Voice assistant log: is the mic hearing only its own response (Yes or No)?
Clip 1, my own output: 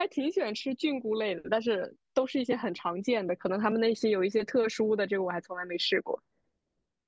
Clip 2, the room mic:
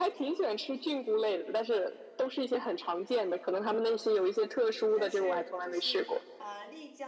No